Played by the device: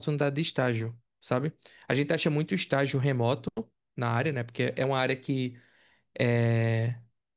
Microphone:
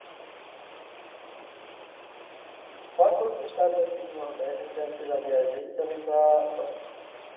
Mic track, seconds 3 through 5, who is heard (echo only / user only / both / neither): user only